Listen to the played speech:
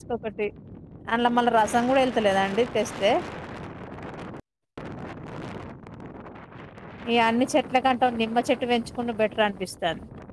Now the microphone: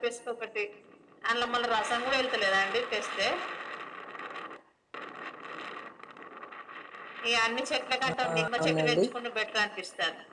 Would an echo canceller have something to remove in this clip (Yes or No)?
Yes